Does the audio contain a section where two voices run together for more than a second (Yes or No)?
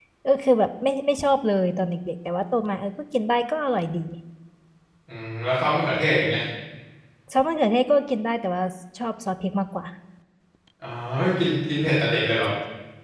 No